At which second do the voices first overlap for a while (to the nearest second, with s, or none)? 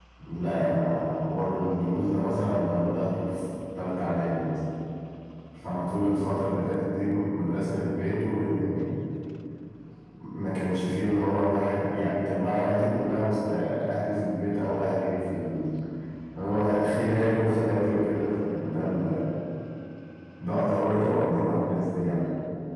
none